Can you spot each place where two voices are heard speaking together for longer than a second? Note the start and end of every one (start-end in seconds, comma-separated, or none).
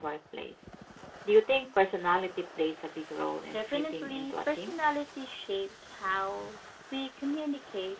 3.5-4.8